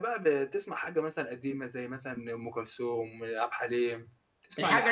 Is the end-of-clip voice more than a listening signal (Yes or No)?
Yes